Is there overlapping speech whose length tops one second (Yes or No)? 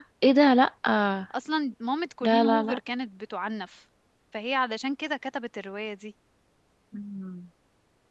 No